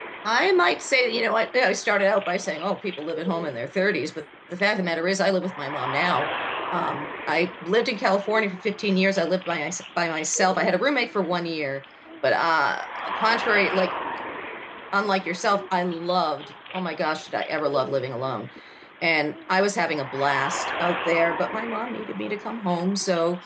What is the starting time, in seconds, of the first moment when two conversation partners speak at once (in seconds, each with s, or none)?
none